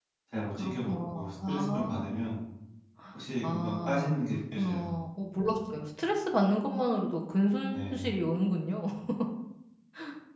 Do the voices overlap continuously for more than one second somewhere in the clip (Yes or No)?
Yes